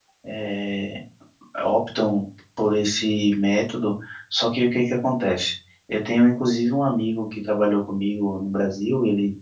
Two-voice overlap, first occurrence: none

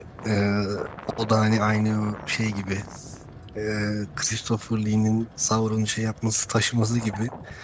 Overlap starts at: none

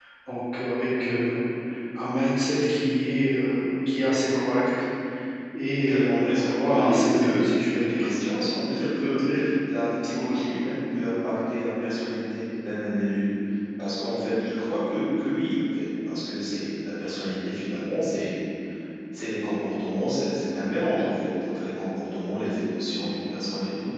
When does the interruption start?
5.8 s

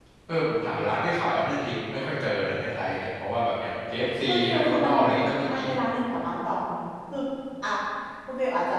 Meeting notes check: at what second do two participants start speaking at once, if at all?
4.2 s

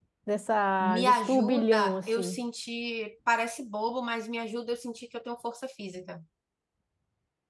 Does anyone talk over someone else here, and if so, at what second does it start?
0.8 s

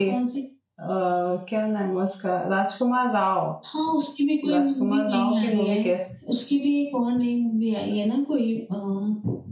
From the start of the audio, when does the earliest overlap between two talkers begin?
4.5 s

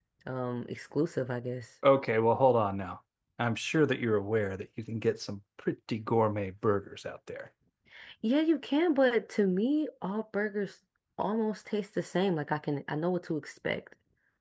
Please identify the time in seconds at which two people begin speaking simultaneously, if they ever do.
none

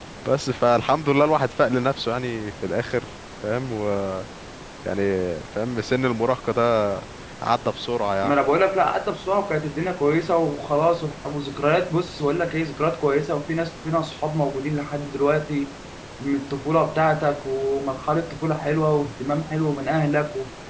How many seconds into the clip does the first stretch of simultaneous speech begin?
none

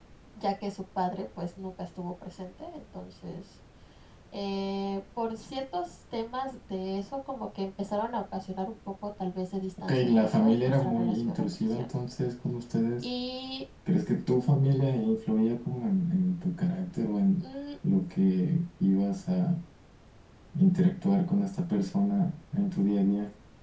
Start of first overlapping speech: 9.8 s

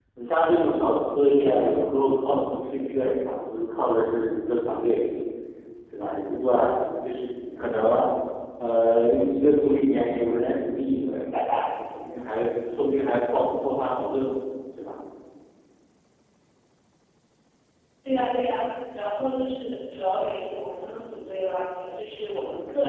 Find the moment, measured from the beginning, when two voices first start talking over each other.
none

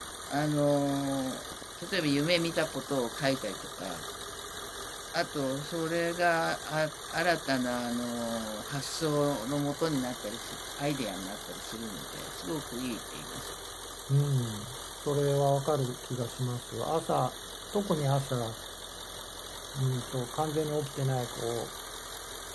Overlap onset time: none

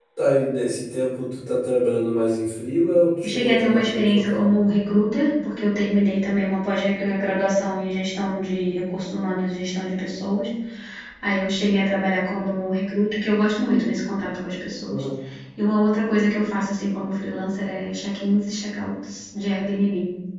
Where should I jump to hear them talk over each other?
3.2 s

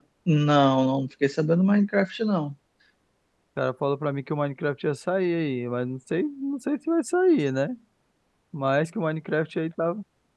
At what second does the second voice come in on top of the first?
none

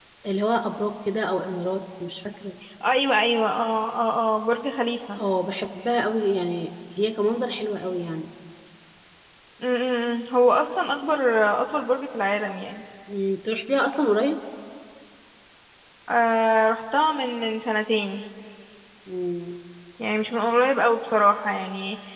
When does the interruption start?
none

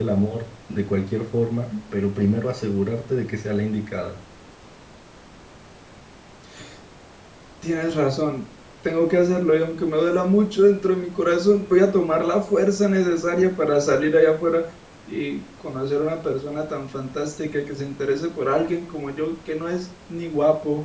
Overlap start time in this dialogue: none

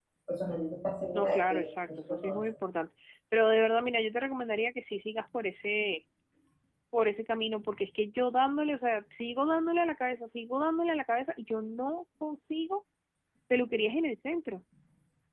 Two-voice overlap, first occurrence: 1.1 s

